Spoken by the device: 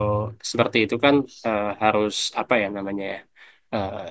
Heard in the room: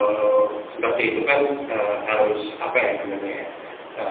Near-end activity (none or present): none